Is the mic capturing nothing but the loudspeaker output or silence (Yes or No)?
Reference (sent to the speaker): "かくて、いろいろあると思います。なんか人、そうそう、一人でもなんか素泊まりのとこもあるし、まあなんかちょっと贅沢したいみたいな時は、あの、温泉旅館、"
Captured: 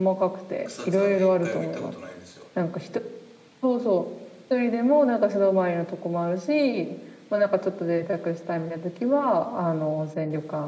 No